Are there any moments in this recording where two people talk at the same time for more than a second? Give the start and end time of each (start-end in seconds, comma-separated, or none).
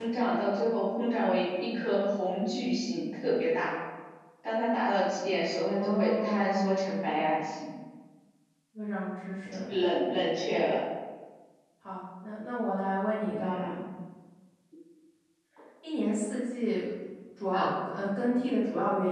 5.7-7.3